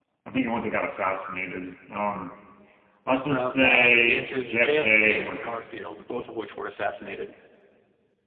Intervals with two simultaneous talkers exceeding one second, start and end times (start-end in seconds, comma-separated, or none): 3.3-5.6